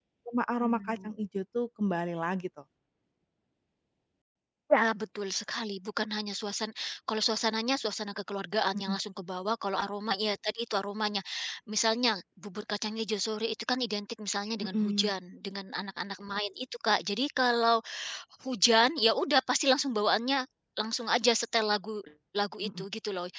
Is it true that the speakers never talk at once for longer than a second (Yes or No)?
Yes